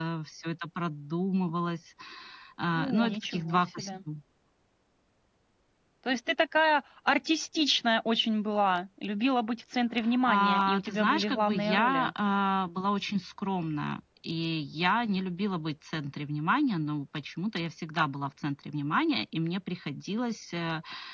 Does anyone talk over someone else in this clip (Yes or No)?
Yes